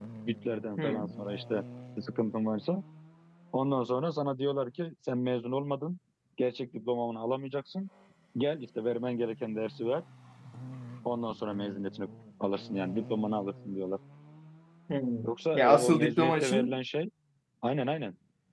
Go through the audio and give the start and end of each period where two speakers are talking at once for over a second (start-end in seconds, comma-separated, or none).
15.5-16.8